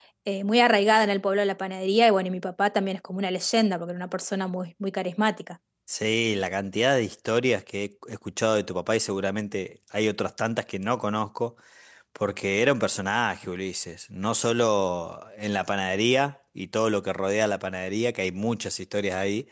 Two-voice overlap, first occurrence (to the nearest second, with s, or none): none